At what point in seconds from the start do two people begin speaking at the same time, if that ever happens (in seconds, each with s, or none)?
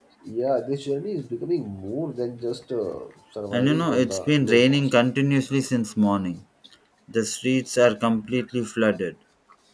3.5 s